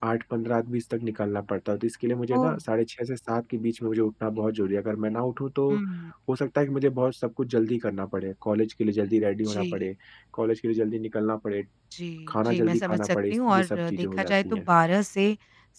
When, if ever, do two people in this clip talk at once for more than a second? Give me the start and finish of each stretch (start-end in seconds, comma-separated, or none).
12.3-14.7